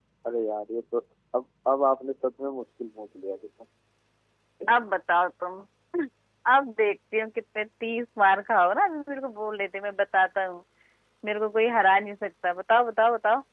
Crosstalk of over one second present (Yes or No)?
No